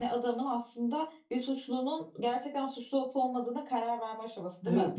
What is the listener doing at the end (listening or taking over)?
taking over